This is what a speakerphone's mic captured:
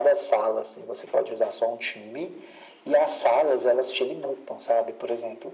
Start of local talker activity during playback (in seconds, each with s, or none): none